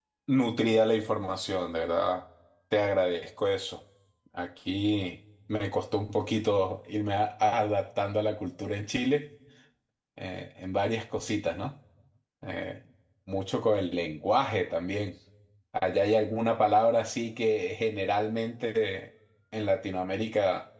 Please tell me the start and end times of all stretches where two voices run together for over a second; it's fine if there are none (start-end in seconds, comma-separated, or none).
none